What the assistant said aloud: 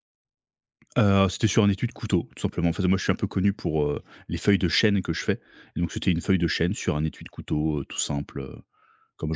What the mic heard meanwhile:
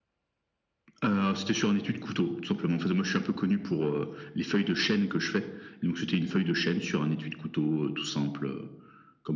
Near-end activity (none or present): none